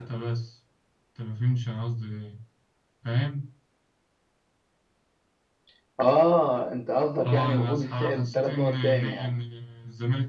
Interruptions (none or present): present